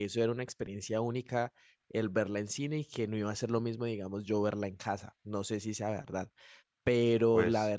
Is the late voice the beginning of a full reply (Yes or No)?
No